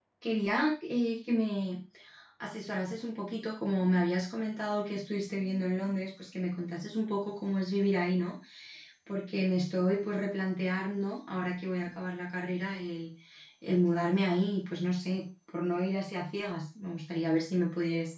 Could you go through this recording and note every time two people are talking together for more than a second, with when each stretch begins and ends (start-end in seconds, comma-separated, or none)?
none